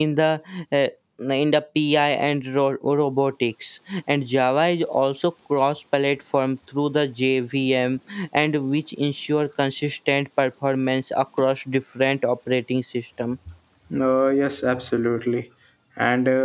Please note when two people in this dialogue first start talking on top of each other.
none

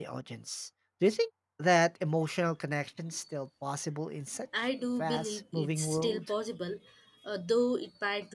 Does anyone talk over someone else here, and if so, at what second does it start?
5 s

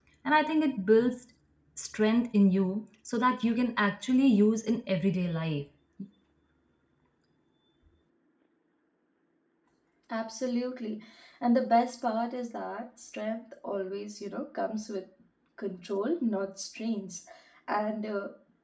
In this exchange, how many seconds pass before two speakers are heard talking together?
none

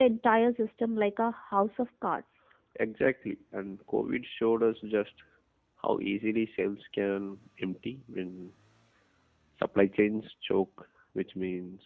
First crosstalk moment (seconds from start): none

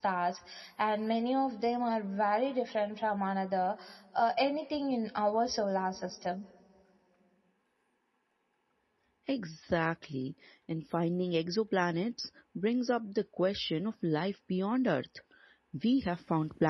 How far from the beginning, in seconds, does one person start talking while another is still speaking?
none

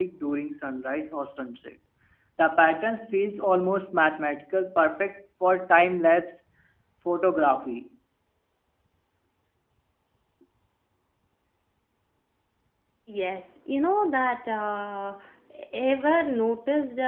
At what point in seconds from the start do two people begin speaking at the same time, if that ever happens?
none

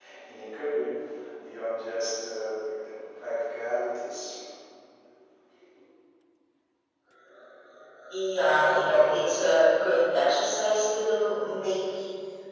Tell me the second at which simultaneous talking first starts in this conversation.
none

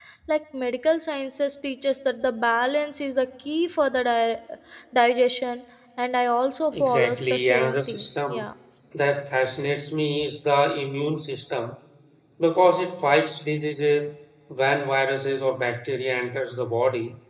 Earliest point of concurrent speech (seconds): 7 s

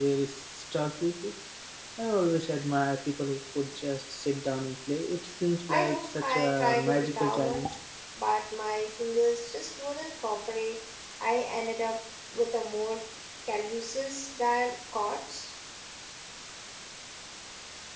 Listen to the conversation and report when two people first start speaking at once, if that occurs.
6 s

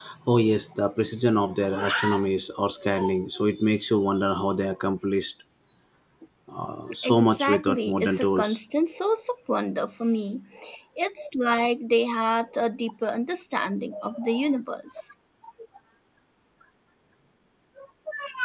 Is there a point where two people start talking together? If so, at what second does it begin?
7 s

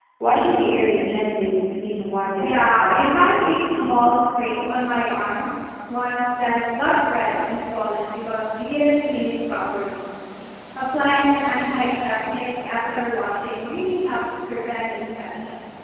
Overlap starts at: 2 s

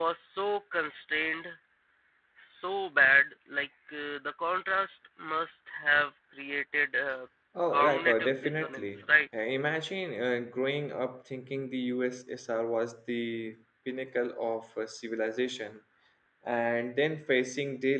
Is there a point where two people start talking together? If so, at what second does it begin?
8 s

